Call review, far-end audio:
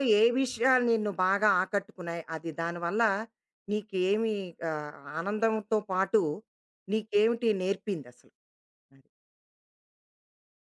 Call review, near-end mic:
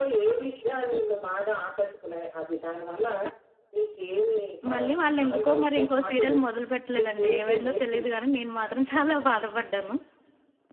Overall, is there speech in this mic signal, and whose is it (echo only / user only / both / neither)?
both